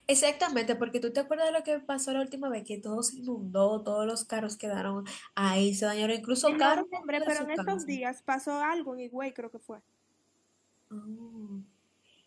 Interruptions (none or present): present